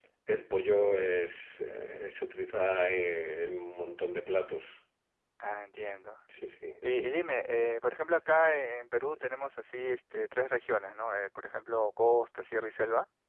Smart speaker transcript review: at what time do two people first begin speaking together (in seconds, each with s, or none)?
none